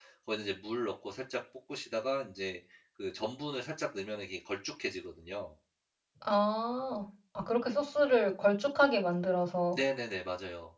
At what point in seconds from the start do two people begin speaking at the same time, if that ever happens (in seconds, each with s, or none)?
none